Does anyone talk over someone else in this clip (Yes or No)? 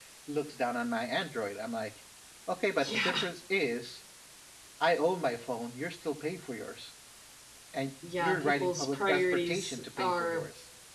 Yes